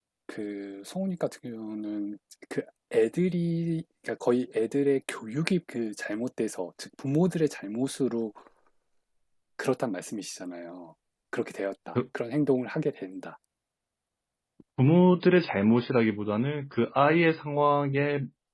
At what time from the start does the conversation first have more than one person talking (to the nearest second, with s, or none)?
none